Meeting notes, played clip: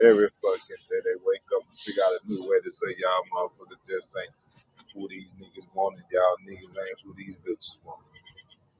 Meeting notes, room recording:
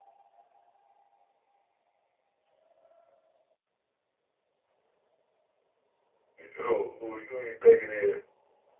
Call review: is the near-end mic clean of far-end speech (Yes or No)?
Yes